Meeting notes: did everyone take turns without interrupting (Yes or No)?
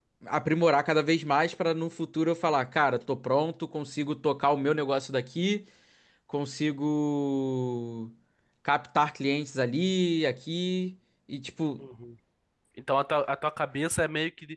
Yes